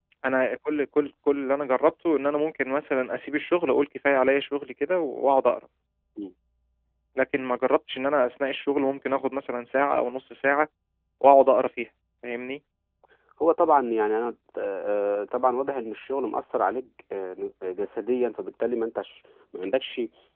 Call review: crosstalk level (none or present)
none